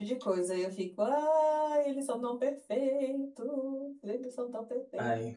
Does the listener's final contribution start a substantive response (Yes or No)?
Yes